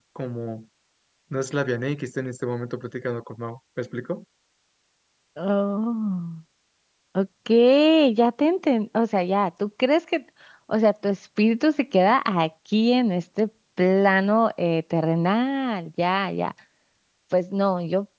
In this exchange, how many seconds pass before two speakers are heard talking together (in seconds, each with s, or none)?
none